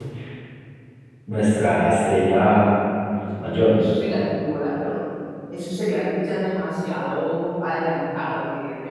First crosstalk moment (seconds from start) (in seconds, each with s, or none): none